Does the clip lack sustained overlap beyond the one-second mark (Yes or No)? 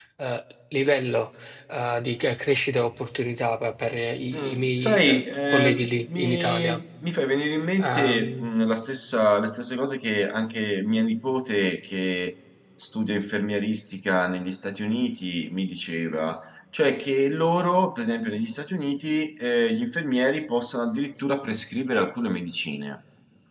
No